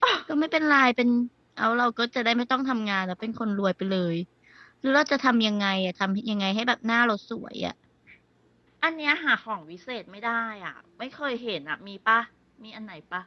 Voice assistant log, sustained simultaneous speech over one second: none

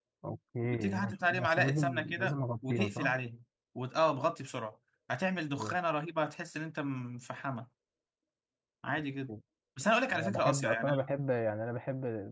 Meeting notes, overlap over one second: present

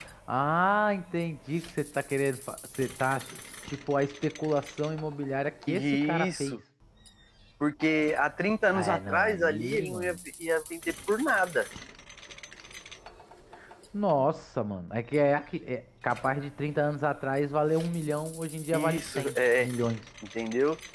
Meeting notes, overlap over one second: present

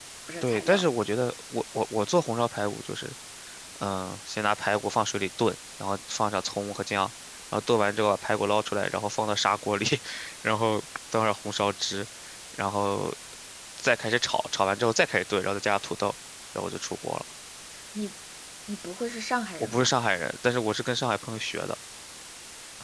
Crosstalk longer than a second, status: none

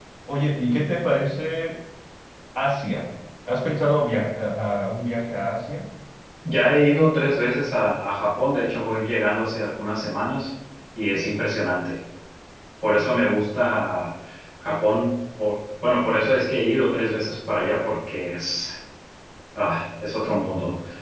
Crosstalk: none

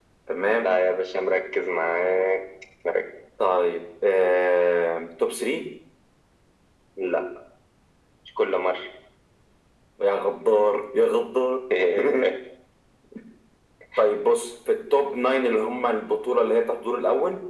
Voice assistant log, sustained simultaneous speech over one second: none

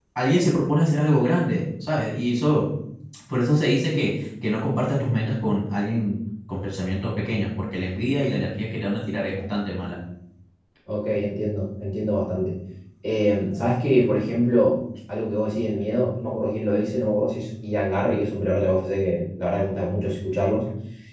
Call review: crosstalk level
none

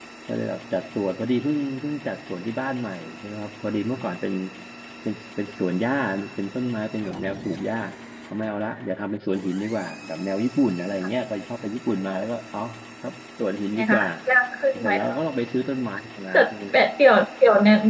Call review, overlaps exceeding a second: none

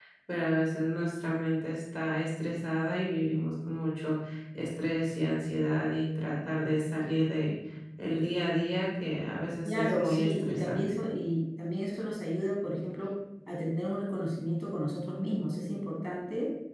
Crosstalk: present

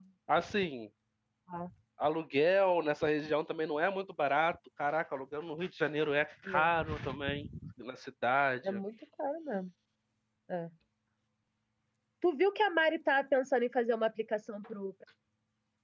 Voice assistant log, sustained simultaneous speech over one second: none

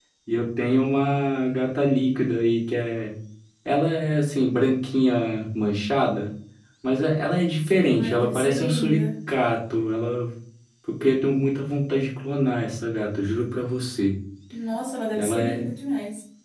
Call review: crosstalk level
present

